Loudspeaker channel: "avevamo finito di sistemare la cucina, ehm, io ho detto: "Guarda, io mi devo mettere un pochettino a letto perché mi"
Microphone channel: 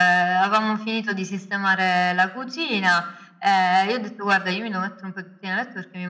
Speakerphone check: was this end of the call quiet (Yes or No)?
Yes